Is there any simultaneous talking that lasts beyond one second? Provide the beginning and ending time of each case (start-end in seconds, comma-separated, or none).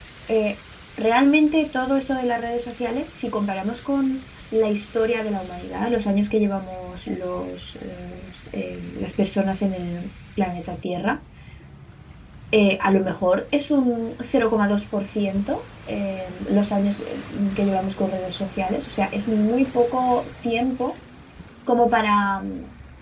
none